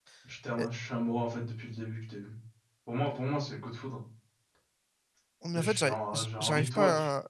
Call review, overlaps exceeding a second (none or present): present